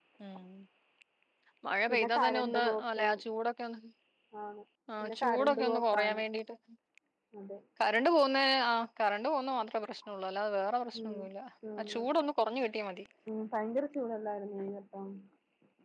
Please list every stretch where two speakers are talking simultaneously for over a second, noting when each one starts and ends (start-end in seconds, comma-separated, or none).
1.9-3.1, 5.0-6.2